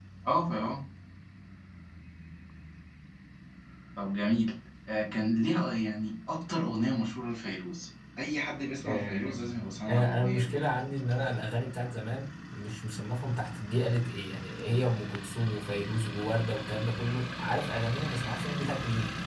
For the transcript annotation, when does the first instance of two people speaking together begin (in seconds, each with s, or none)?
8.8 s